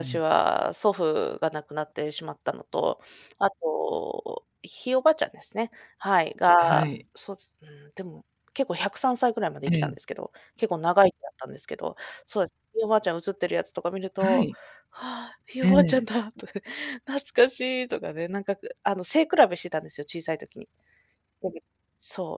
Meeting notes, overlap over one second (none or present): none